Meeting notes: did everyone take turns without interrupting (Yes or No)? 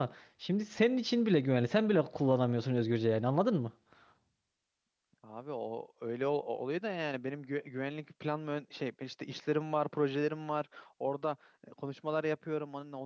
Yes